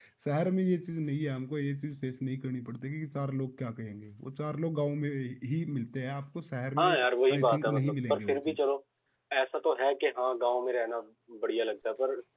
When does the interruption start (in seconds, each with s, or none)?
6.8 s